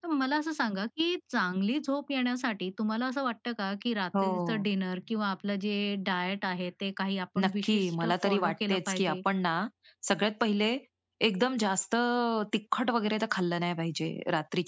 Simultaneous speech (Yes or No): Yes